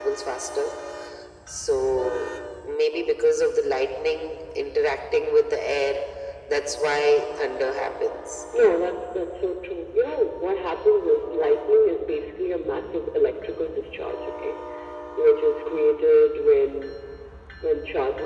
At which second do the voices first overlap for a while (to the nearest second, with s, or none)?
none